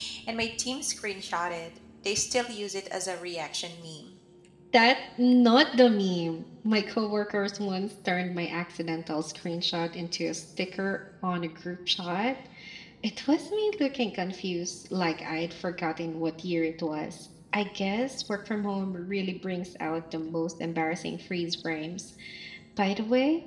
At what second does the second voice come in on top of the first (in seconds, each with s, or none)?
none